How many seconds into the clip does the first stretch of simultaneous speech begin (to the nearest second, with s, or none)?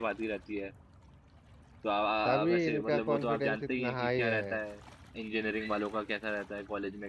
2 s